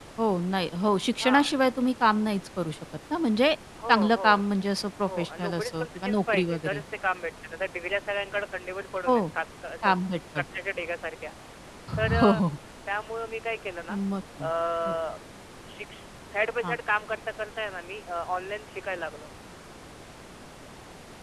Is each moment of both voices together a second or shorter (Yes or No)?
No